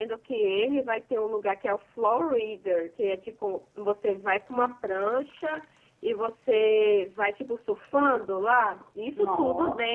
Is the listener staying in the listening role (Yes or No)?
Yes